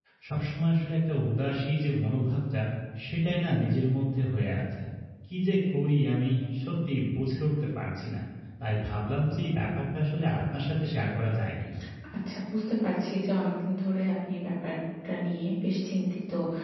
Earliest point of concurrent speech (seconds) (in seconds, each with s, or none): none